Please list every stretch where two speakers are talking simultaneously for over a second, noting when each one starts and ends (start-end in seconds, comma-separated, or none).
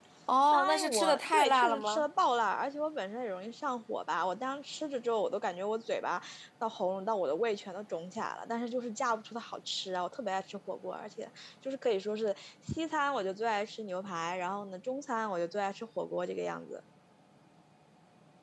0.5-2.0